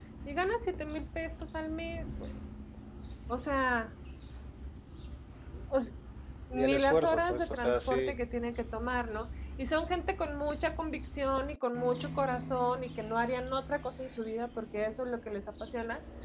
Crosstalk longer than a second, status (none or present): present